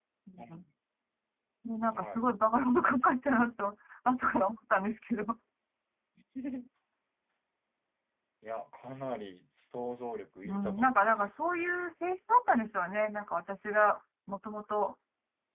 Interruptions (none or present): present